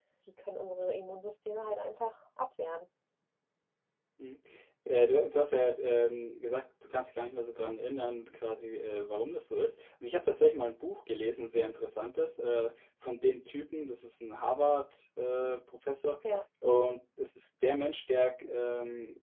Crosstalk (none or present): none